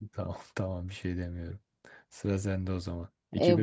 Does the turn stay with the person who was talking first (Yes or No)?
No